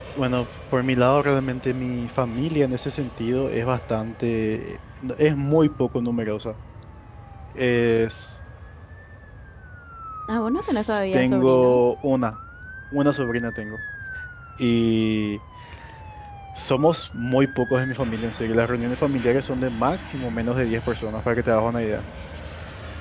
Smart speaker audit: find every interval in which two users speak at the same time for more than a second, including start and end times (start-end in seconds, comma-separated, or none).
10.6-11.9